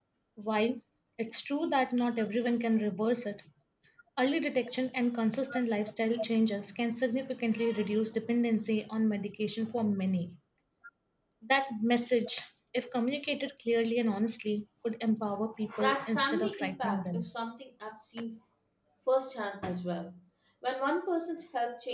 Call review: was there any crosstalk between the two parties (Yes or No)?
Yes